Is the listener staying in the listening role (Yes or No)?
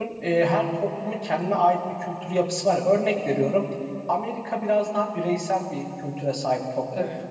Yes